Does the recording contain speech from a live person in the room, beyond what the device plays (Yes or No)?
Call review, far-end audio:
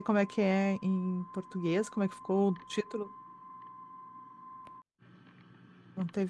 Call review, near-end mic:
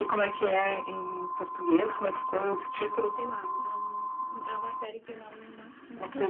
Yes